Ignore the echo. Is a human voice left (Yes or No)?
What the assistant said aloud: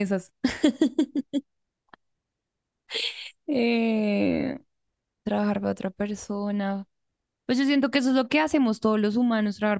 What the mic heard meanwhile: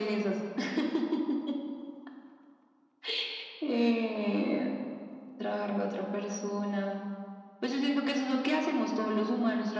No